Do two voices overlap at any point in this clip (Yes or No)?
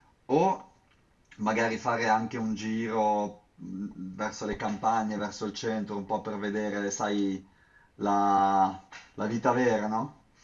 No